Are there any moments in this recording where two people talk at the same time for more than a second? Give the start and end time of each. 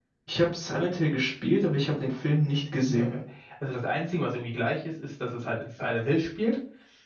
none

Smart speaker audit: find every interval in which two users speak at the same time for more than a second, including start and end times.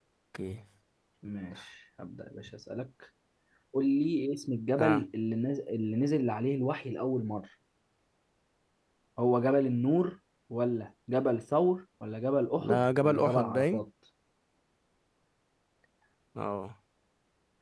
12.6-13.8

